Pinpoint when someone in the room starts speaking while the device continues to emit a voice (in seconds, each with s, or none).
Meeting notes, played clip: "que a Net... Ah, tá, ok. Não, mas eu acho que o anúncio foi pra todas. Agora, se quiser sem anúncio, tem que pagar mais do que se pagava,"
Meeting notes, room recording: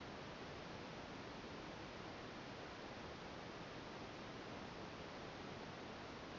none